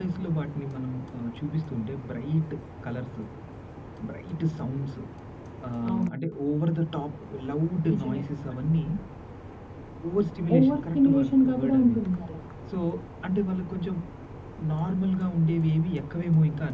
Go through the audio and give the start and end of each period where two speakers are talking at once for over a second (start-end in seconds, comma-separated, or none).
10.6-12.0